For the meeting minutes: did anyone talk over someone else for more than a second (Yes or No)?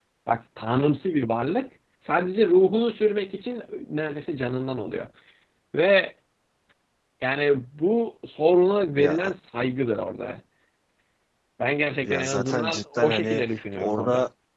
Yes